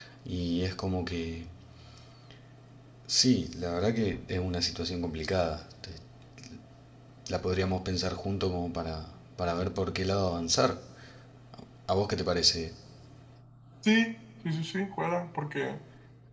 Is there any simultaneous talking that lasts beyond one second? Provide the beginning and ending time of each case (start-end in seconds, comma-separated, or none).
none